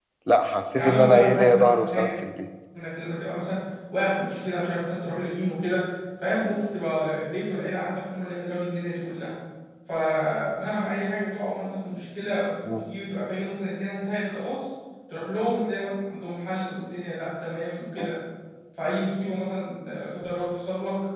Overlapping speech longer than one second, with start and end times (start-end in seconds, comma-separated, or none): 0.8-2.1